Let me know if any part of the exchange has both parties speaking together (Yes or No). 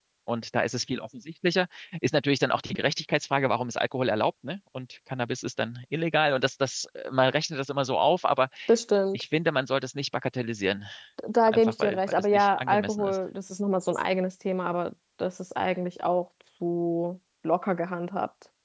Yes